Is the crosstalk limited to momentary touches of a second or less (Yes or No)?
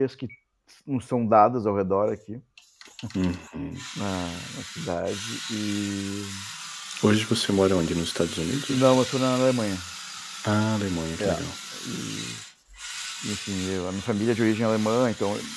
Yes